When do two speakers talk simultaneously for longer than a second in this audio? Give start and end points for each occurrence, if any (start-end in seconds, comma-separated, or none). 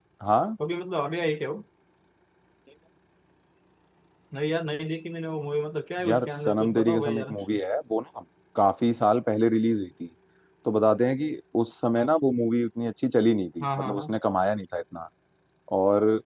6.0-7.4